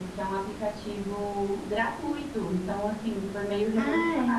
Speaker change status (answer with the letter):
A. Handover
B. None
A